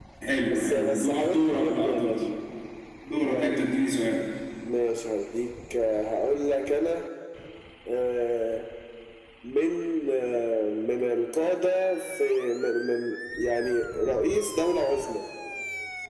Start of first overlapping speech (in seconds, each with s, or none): 0.5 s